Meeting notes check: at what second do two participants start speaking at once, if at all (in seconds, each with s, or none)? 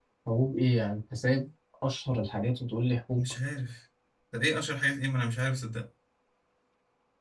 none